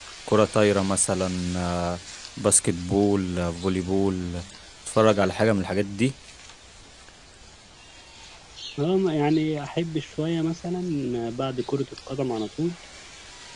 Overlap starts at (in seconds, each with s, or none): none